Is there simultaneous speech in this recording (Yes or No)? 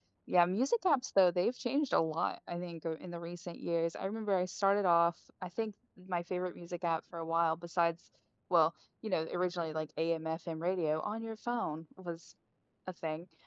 No